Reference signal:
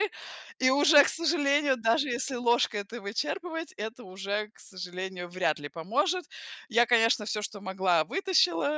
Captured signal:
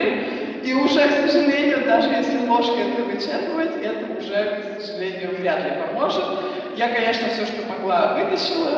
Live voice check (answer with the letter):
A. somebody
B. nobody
B